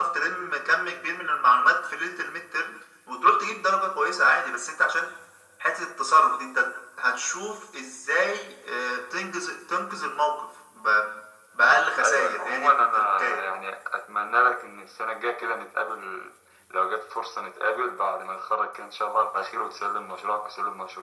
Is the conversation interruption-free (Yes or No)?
No